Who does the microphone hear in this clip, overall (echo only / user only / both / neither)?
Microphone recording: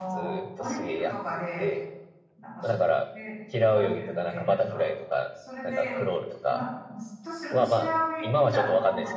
both